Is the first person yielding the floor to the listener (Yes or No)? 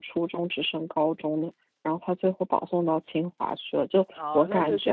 Yes